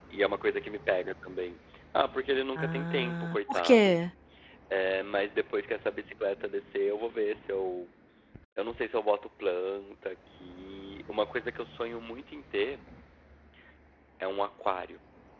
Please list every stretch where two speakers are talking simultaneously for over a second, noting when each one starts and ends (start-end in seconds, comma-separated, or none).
2.6-4.0